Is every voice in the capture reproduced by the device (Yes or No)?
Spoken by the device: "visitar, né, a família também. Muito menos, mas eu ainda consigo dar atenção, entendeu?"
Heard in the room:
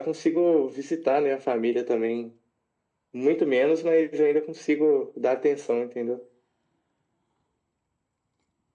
Yes